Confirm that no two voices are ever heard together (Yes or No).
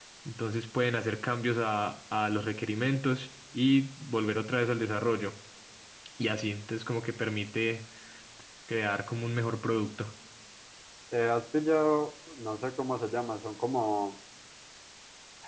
Yes